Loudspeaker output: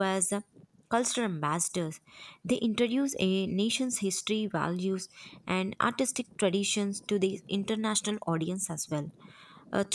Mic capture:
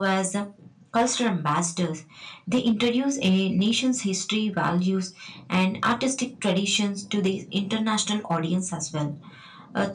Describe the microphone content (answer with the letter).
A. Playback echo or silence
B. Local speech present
A